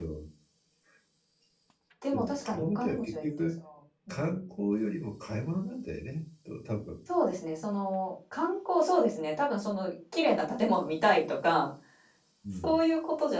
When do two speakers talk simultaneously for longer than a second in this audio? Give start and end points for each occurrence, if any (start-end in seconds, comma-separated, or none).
2.1-3.5